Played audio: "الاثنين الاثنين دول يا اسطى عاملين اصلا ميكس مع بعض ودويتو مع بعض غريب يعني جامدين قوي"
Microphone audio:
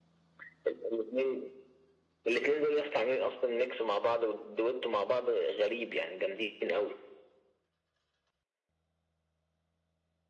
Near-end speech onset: none

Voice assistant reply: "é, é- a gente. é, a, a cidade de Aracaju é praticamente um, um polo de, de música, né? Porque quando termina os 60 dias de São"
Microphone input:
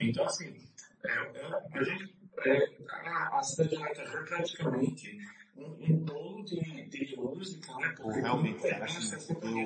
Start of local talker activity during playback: 8.0 s

